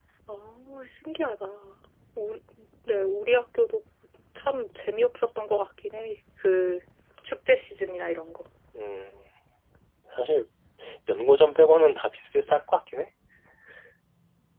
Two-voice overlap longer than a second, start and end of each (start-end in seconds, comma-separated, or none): none